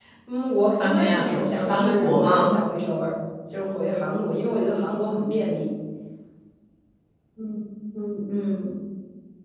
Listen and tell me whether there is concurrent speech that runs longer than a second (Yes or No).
Yes